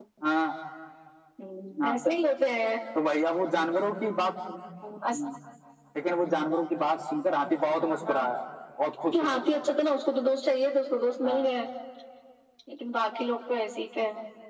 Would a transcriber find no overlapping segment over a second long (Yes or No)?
Yes